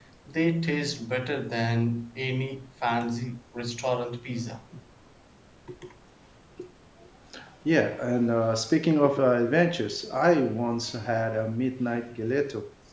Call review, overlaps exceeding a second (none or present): none